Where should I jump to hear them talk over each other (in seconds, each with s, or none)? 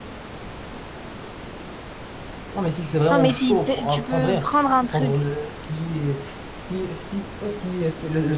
3.1 s